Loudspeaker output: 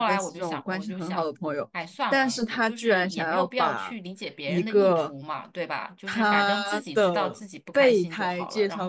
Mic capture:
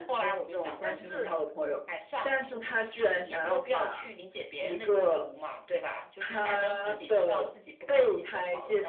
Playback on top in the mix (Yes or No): Yes